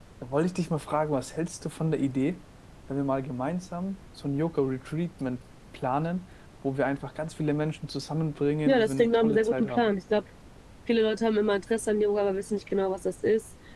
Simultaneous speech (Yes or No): Yes